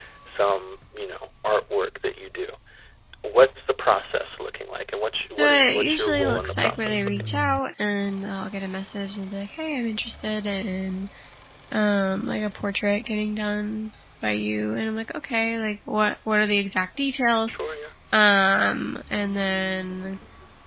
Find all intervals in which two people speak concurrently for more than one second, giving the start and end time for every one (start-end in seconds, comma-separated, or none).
5.4-7.4